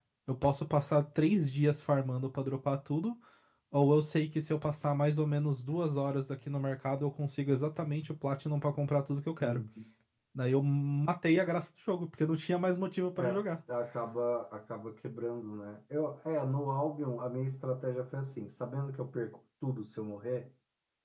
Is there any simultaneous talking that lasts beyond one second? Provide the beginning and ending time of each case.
none

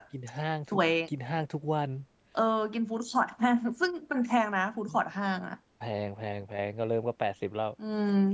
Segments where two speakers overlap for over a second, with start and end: none

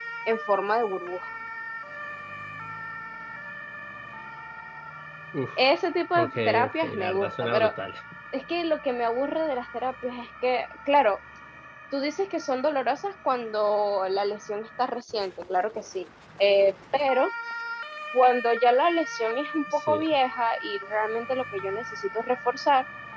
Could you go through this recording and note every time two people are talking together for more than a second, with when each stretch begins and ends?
6.2-7.7

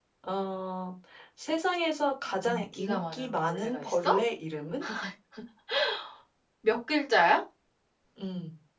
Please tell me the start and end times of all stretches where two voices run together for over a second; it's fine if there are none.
2.4-4.1

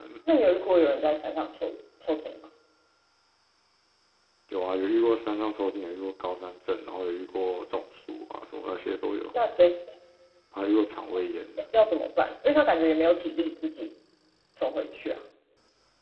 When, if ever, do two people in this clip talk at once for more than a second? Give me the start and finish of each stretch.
none

